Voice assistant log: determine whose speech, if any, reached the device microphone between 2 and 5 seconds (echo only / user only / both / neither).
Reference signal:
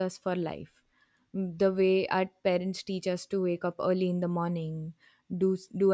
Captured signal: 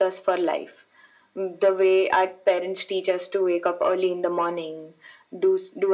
echo only